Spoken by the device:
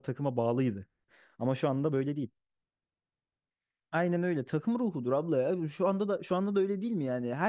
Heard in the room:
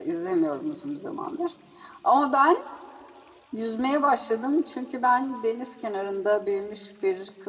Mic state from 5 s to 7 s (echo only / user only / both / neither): user only